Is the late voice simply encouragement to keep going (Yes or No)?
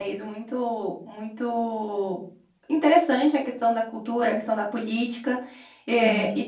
Yes